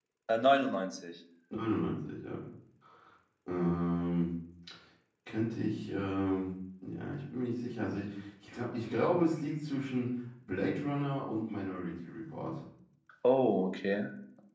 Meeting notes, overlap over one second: none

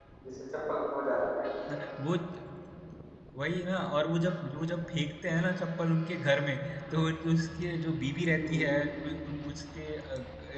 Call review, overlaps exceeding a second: none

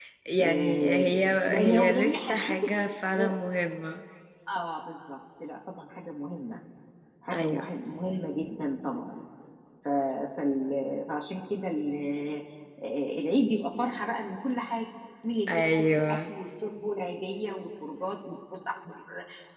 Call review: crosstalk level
present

